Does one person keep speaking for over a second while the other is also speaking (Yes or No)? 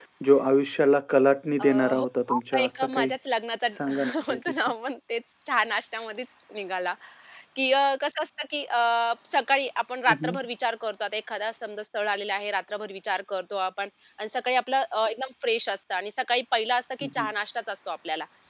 Yes